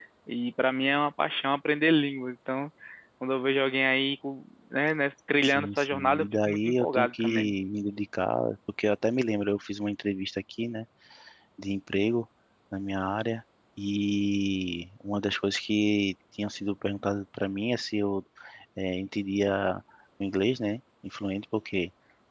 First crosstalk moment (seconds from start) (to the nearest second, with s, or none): 5 s